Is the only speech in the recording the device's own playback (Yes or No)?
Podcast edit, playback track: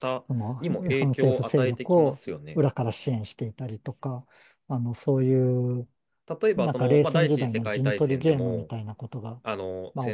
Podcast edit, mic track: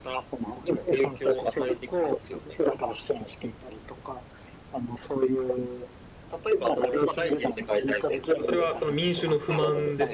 No